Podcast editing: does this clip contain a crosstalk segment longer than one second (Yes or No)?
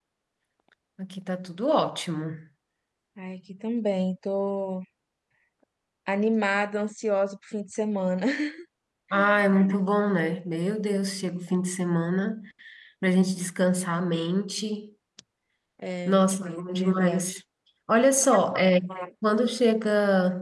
Yes